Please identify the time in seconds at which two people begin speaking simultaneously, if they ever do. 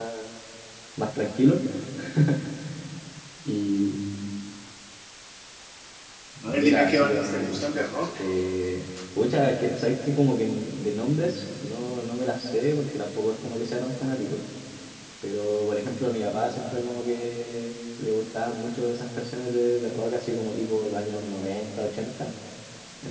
6.4 s

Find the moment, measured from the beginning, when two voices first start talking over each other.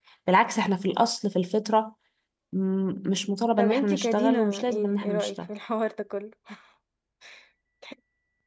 3.6 s

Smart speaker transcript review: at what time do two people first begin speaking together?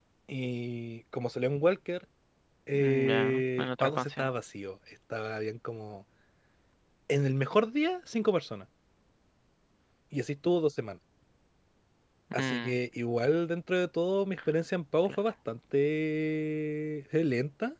2.7 s

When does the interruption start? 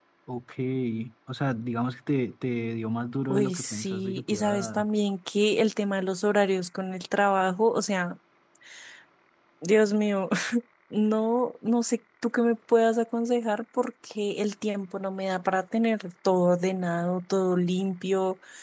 3.3 s

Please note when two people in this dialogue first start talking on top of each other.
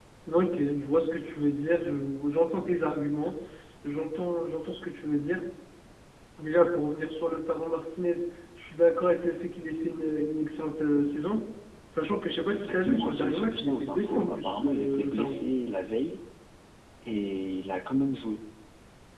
12.6 s

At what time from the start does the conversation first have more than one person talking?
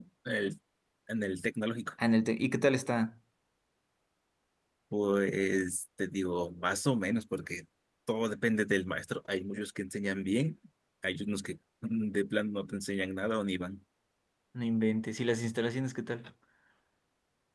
none

